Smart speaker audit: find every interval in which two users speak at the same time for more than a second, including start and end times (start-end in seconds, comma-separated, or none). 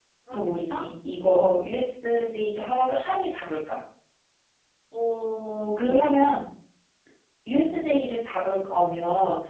none